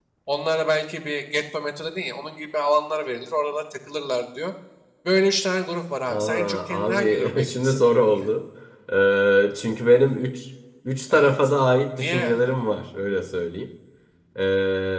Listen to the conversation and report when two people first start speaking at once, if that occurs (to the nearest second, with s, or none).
6 s